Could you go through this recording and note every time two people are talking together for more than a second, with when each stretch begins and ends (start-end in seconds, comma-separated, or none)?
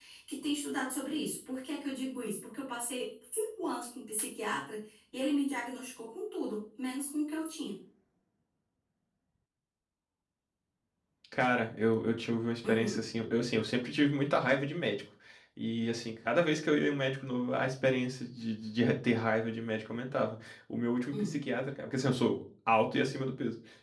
none